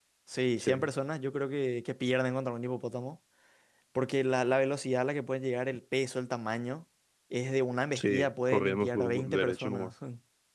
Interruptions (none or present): present